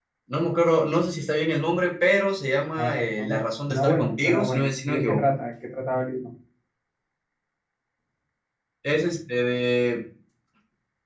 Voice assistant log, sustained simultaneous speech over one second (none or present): present